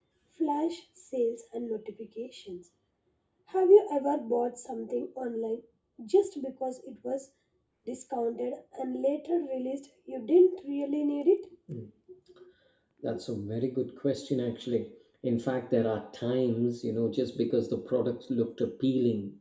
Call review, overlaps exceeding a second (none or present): none